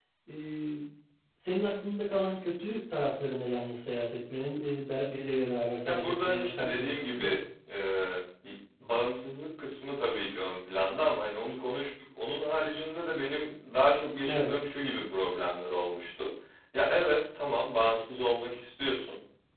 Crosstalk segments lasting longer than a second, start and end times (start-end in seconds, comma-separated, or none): 5.8-7.3